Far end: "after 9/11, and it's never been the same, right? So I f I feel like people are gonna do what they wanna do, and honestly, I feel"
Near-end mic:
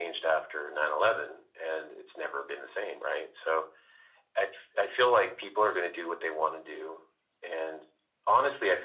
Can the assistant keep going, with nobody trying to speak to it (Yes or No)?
Yes